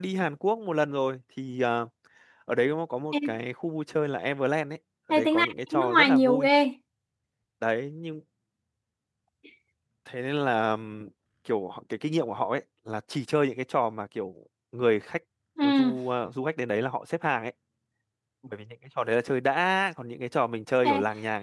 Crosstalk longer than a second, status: present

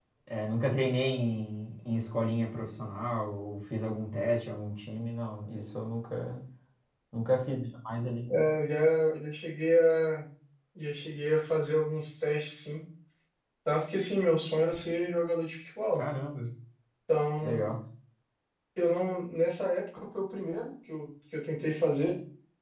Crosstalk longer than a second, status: none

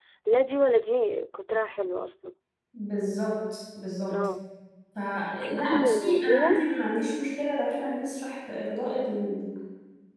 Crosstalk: present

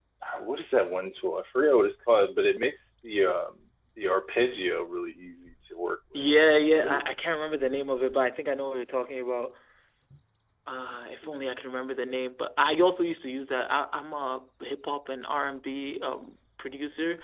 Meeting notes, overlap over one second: none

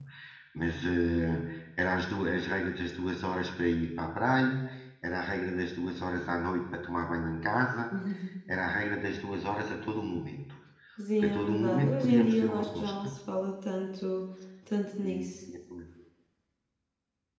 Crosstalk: present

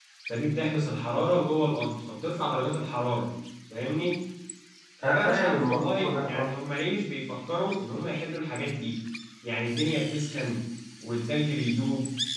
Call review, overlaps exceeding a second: present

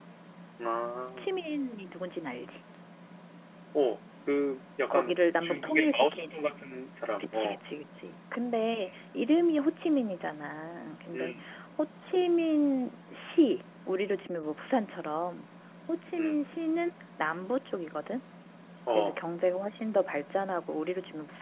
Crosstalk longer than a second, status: present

